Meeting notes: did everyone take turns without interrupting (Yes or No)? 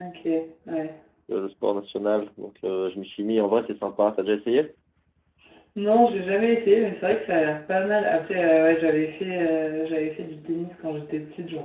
Yes